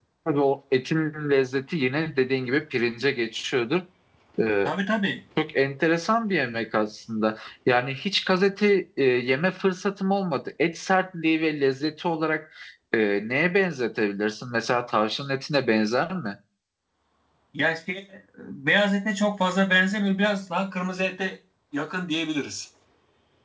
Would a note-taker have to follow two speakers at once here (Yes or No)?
No